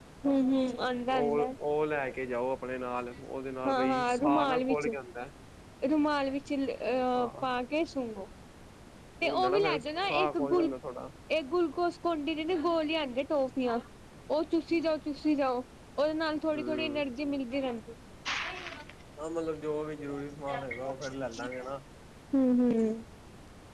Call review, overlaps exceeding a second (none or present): present